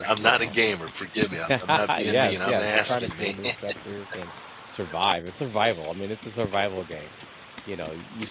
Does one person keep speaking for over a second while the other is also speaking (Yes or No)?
Yes